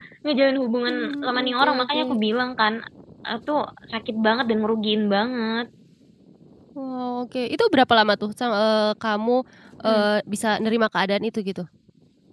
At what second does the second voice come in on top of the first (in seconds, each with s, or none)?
0.9 s